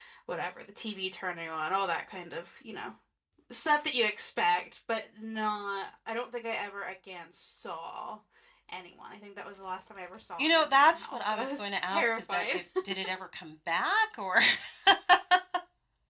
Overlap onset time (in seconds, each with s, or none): 10.4 s